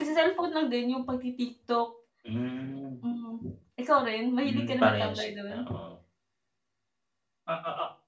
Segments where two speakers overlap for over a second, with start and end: 4.4-5.7

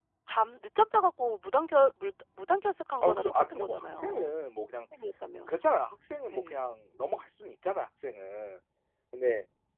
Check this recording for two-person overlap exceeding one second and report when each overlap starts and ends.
3.0-4.3

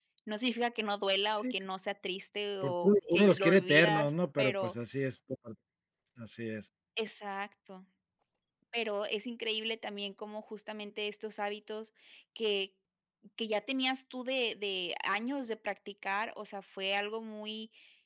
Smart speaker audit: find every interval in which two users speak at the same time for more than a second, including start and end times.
2.6-4.7

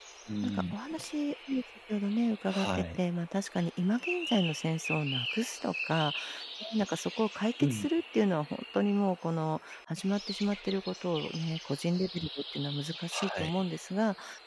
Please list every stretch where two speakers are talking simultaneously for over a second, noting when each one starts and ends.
none

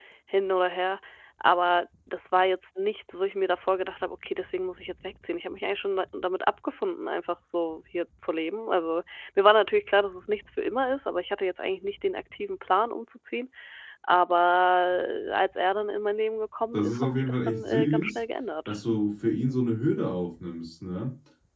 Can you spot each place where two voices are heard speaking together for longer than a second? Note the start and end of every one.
16.7-18.2

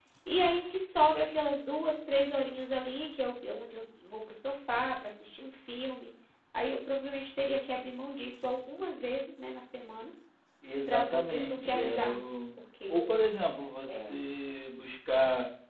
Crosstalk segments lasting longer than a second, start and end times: 10.9-12.2

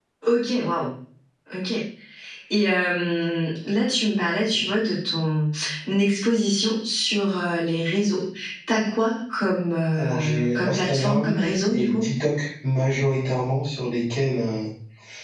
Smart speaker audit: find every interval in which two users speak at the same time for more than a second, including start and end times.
10.0-12.0

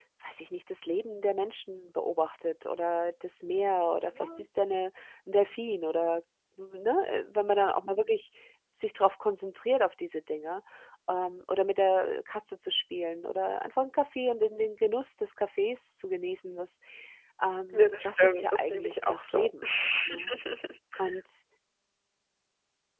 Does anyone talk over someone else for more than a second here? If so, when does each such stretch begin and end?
17.7-19.5

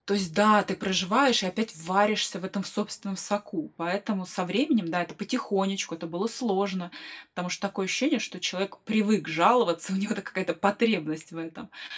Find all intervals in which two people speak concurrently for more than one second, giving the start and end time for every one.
none

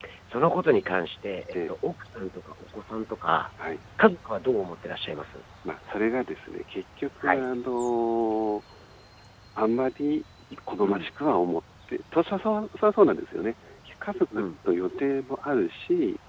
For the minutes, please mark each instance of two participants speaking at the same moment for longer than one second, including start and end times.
none

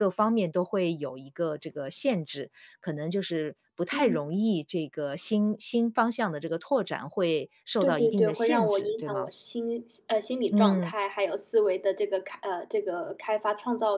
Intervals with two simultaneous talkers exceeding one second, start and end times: 7.8-9.3

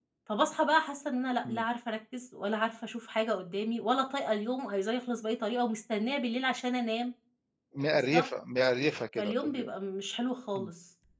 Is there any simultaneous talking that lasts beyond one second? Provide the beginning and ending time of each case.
none

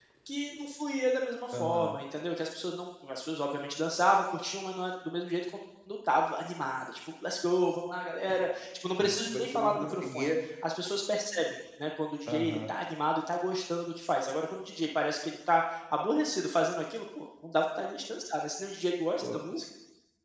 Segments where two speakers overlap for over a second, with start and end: 9.0-10.3

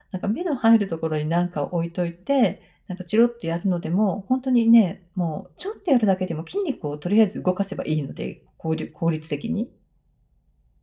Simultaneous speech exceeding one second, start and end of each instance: none

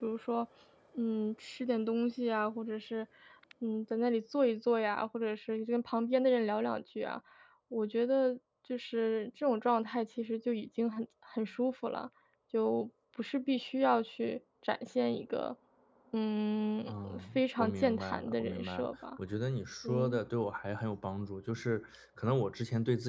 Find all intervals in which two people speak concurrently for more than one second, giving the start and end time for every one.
16.9-18.9

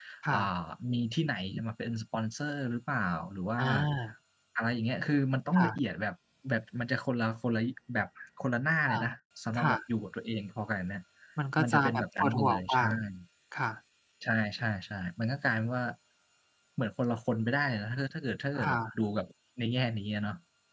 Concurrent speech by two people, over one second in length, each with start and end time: 11.6-12.8

